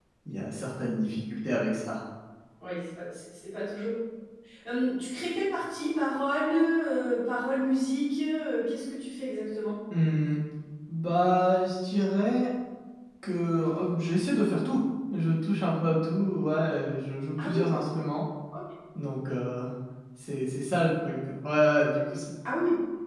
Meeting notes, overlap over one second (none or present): none